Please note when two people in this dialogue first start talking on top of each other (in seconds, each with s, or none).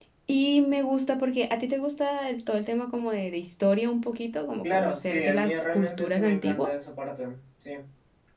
4.6 s